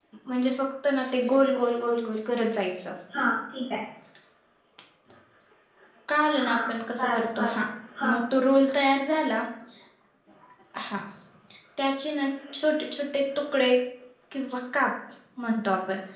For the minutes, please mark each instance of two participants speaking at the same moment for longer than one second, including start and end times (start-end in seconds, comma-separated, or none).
6.3-7.6